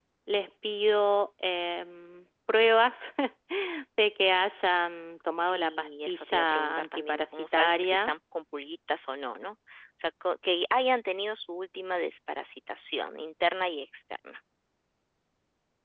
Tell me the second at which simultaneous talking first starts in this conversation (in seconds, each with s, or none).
5.3 s